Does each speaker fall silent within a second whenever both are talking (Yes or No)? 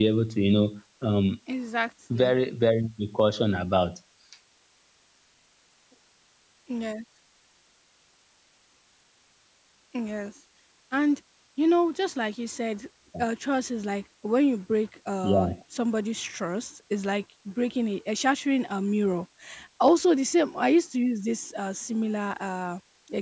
Yes